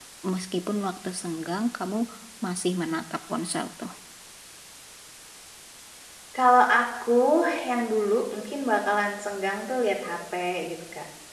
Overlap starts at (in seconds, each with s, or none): none